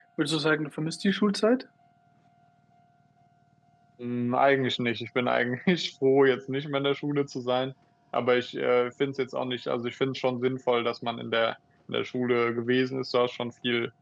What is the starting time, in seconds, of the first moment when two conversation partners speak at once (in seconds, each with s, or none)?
none